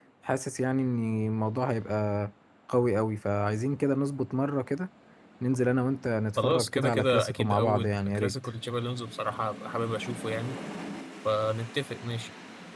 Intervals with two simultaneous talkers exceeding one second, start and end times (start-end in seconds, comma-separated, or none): 6.4-8.3